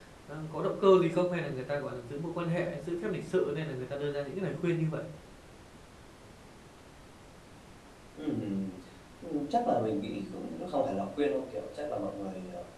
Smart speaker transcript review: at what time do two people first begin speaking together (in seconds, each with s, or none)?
none